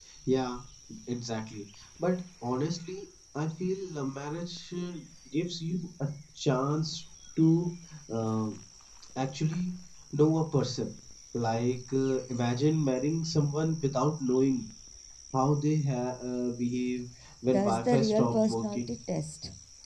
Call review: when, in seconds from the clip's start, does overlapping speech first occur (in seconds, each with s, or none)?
17.5 s